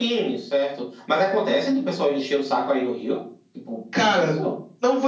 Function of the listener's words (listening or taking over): taking over